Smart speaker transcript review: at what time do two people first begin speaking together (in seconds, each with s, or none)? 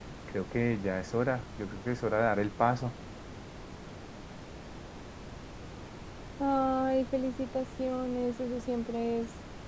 none